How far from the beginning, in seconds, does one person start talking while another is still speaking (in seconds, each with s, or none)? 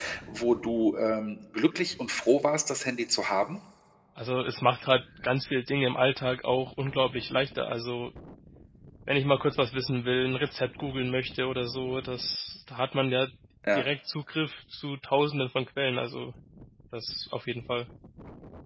none